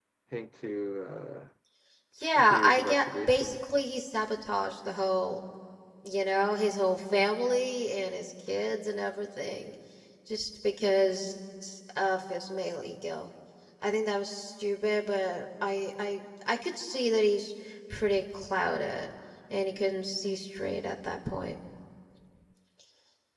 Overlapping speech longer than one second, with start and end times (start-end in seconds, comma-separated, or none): 2.4-3.6